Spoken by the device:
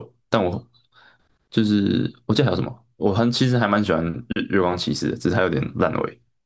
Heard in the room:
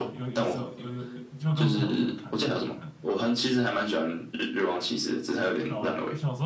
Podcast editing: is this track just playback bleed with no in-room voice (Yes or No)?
No